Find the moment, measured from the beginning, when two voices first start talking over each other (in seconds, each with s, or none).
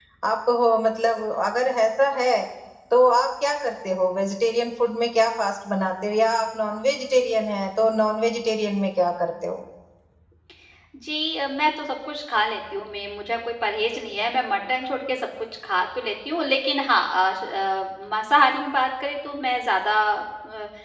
none